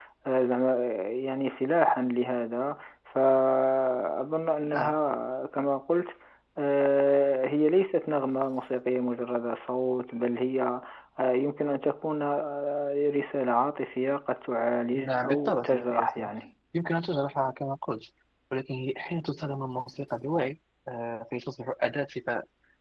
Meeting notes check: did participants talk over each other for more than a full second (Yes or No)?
Yes